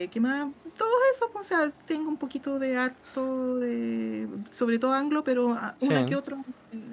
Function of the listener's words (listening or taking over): listening